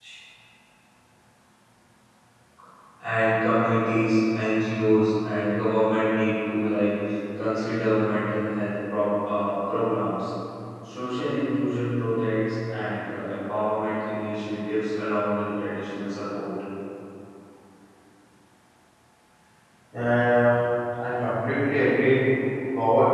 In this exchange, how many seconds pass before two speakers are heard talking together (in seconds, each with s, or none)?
none